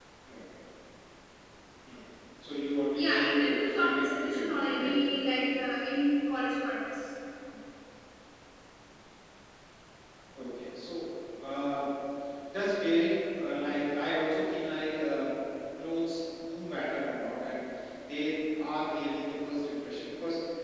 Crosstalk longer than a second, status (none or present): present